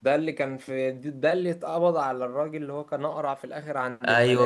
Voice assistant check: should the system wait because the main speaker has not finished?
No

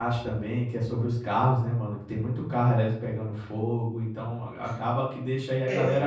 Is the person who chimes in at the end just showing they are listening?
Yes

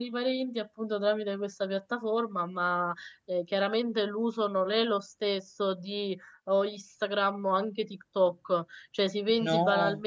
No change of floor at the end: Yes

